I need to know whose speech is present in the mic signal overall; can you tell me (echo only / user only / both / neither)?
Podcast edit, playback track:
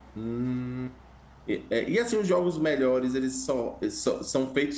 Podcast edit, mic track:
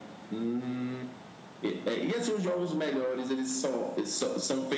echo only